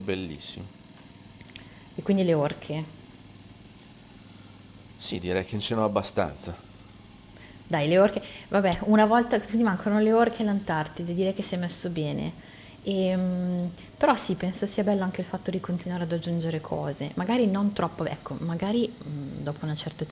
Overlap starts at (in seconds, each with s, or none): none